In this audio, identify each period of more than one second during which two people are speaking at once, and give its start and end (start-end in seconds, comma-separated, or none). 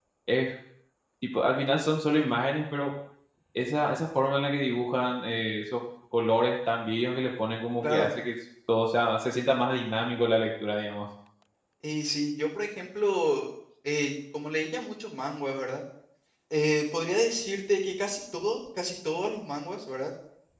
none